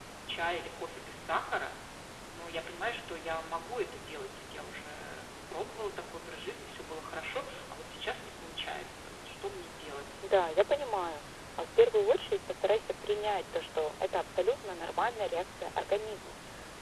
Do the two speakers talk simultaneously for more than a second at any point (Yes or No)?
No